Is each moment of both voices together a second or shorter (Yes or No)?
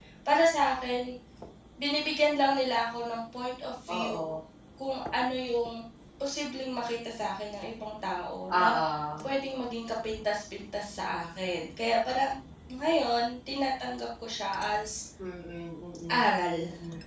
Yes